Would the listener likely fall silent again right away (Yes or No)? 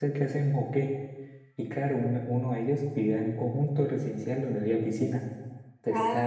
Yes